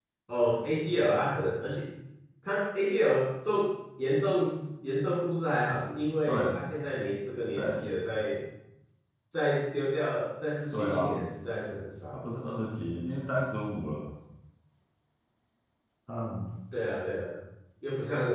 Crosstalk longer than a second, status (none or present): none